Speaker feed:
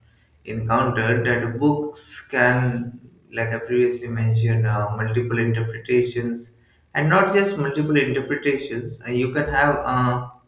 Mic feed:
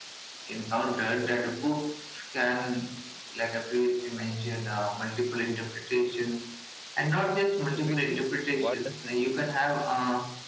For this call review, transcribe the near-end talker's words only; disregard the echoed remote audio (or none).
so we think what does this mean